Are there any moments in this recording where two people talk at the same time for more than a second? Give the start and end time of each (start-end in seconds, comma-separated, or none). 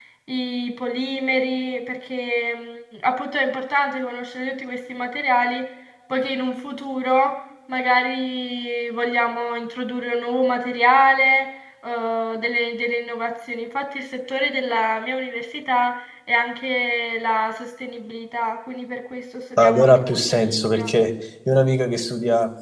19.6-20.9